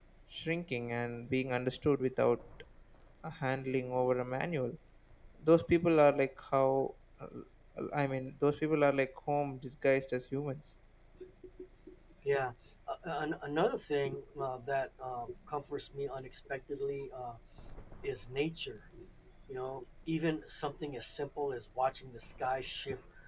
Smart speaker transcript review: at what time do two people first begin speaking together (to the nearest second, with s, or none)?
none